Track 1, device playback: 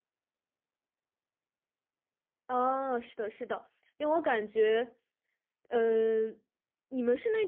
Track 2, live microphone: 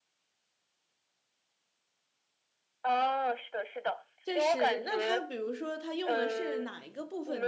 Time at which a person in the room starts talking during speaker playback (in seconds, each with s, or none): 4.2 s